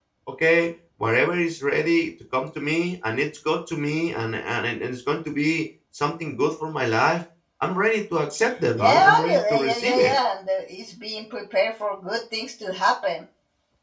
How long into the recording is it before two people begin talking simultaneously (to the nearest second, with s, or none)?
9 s